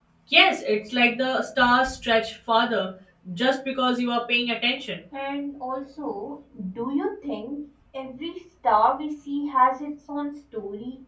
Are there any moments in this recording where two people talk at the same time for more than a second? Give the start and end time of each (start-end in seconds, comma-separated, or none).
none